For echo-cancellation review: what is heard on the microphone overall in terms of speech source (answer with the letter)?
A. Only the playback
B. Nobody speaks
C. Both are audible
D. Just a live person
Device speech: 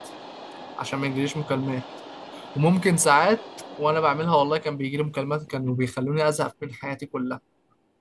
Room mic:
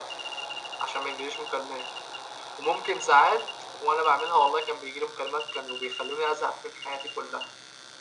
A